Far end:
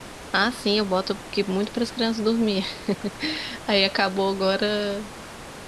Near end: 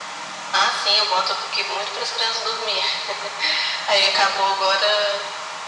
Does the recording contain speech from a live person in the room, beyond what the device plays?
No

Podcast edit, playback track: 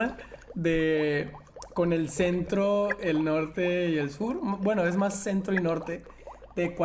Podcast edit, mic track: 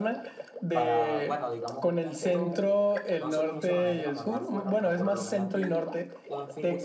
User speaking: Yes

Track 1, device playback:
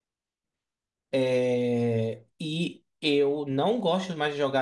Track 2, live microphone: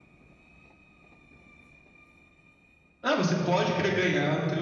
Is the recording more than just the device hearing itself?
Yes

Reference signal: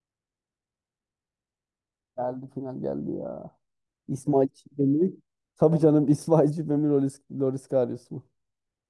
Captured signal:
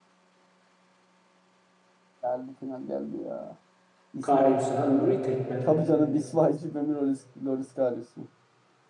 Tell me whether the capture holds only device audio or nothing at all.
No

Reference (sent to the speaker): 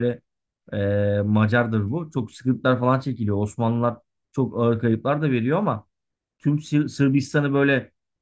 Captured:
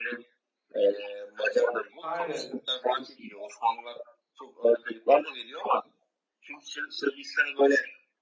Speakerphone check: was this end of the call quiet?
No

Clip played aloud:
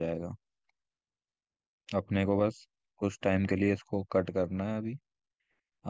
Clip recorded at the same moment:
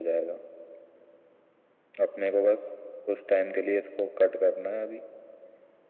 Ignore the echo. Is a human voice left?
No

